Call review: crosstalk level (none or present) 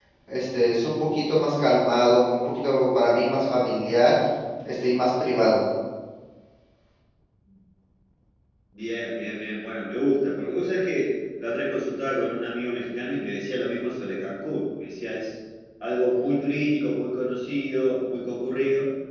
none